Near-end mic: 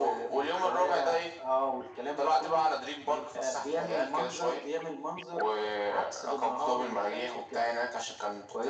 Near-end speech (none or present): none